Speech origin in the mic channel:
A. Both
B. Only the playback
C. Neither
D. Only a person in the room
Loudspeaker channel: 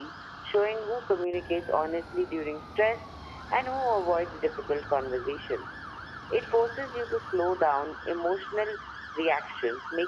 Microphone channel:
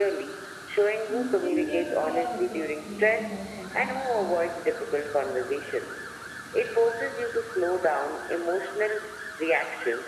A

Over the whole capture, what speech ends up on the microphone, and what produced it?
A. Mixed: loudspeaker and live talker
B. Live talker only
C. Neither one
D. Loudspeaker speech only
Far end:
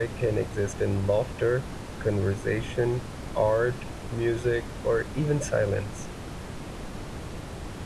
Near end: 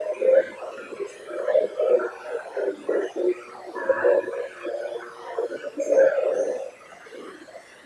D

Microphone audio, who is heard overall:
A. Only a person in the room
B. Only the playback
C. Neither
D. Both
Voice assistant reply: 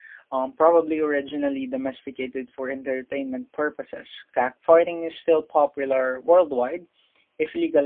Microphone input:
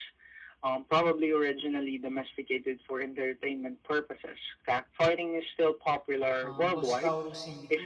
D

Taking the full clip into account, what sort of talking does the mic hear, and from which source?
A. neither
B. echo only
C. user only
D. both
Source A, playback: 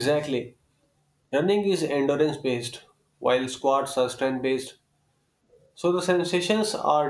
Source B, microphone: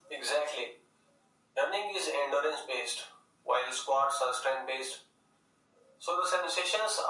B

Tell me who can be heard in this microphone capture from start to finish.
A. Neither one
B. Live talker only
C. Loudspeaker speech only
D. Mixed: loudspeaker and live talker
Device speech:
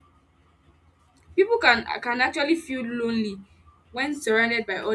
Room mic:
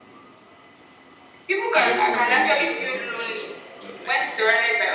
D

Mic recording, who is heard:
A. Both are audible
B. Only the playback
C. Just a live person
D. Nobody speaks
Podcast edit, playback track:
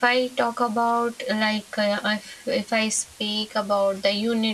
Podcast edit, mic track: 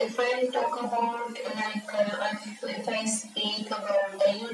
B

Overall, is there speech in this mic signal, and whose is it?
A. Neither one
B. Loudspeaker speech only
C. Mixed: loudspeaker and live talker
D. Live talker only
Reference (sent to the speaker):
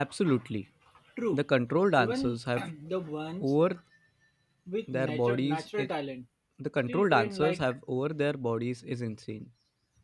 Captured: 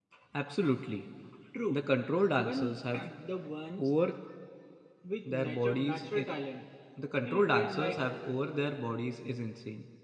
B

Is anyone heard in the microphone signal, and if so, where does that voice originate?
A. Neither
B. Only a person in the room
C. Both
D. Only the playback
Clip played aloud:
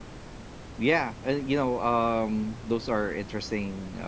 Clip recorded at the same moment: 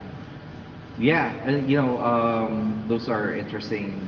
D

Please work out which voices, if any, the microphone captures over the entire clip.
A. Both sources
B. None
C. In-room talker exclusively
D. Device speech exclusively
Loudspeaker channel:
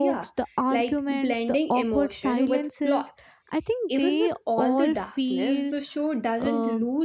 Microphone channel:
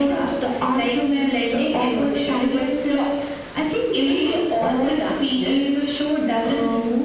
D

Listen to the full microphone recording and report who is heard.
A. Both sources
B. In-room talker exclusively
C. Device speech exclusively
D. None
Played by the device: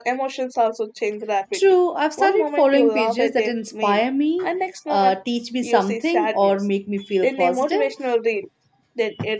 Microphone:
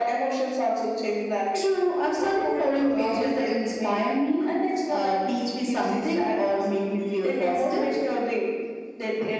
C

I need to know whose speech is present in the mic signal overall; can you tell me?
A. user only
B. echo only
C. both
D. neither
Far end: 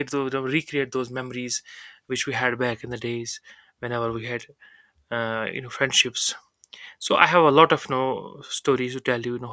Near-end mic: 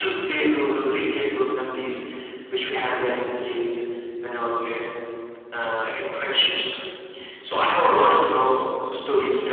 B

